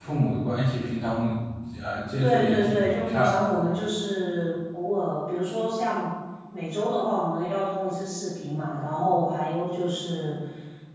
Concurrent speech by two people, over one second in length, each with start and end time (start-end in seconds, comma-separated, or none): 2.2-3.5